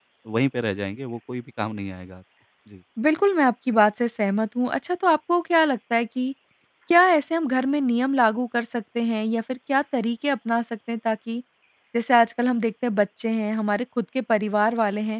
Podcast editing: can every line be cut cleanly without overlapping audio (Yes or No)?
Yes